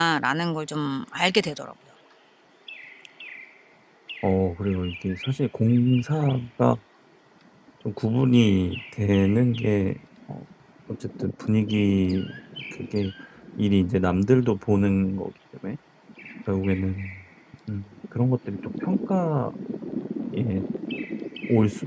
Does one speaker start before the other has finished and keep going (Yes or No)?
No